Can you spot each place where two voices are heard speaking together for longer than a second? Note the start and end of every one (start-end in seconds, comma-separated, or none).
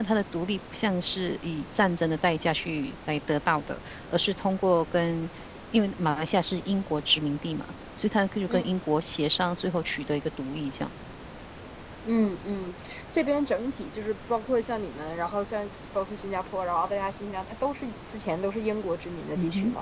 none